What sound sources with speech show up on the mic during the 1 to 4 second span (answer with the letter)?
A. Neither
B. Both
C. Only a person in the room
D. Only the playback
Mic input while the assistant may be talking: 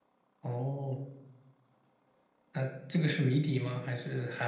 D